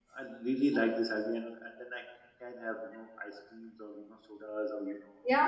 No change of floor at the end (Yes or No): No